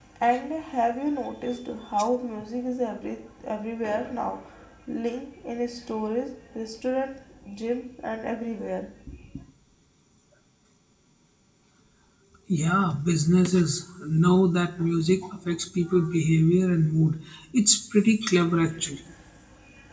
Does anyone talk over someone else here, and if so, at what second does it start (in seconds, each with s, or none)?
none